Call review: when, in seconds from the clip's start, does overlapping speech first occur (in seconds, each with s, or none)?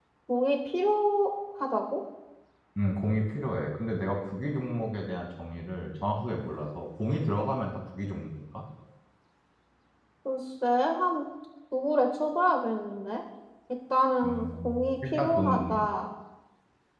14.2 s